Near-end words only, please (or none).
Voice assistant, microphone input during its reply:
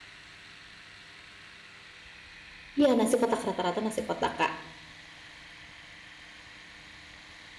Iya nasi kotak, rata rata nasi kotak, Kak.